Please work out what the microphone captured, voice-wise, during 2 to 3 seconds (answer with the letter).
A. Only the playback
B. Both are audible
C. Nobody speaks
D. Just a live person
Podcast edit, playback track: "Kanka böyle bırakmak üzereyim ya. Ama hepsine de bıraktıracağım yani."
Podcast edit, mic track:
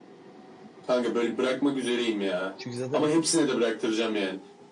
B